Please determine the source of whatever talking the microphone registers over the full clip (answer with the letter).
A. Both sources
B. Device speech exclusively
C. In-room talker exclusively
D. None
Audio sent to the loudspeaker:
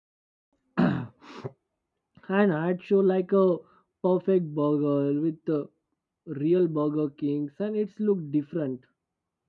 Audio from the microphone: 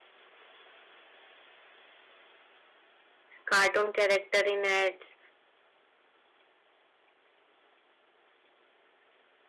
C